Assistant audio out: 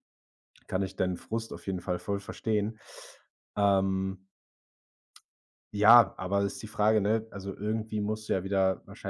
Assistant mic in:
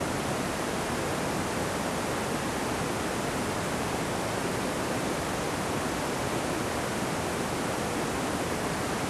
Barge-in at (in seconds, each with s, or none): none